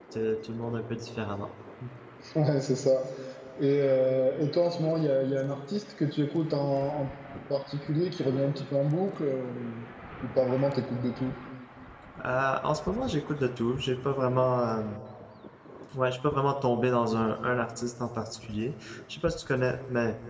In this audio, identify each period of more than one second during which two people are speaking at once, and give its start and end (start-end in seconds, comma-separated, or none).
none